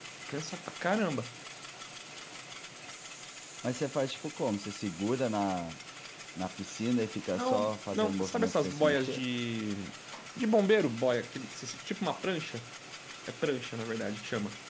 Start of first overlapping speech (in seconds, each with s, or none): 7.3 s